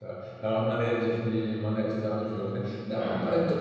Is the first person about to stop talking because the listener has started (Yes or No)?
No